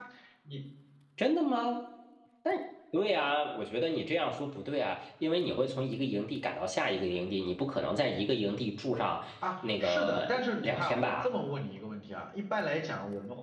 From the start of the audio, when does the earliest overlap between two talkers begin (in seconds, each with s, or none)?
9.8 s